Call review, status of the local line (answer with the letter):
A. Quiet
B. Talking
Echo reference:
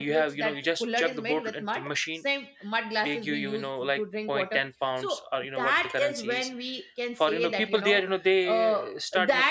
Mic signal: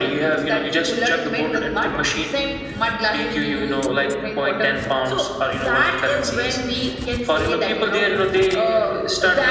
A